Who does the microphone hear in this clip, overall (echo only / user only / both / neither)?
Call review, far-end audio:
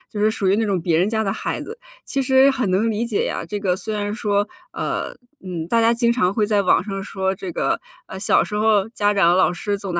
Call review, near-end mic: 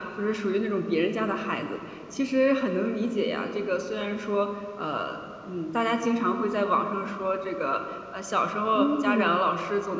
both